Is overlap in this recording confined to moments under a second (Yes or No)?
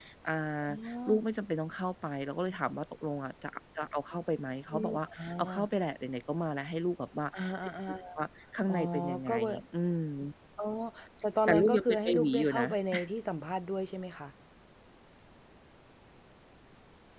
No